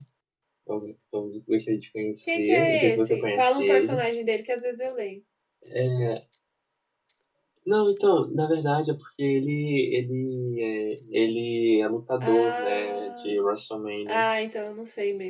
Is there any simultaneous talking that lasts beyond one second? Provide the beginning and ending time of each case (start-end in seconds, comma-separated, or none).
2.3-4.0, 12.2-13.4